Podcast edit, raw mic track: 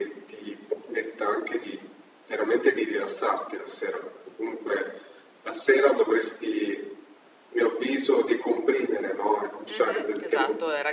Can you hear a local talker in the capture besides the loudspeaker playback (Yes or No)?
Yes